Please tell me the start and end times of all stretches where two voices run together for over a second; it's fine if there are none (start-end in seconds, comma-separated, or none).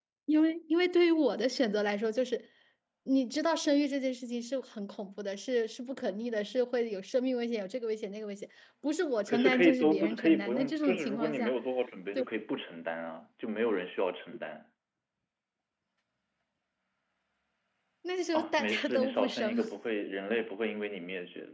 9.3-11.5, 18.3-19.6